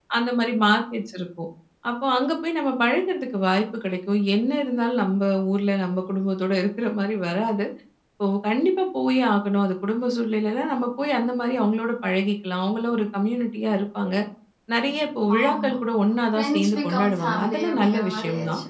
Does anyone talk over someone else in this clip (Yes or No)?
Yes